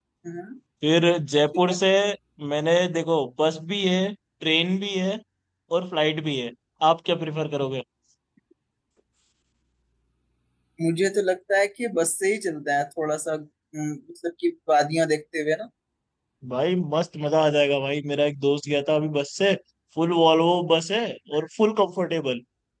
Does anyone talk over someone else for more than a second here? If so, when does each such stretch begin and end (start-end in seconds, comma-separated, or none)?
none